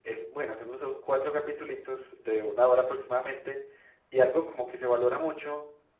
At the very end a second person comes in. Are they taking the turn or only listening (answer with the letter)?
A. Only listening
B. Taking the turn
A